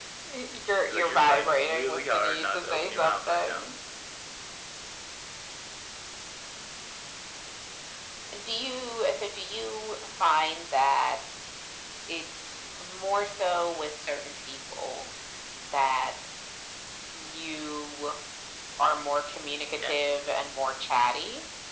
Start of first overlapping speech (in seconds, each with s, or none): 0.9 s